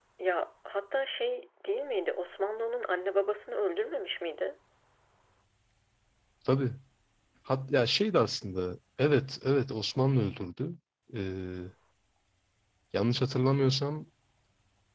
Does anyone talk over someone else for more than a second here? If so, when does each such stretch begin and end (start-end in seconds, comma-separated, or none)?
none